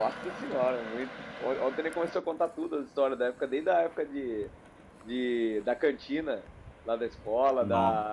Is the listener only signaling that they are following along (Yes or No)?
Yes